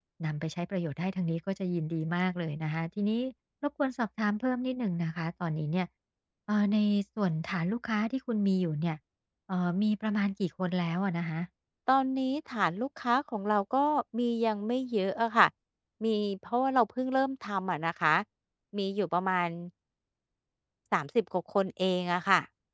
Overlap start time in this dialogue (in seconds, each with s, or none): none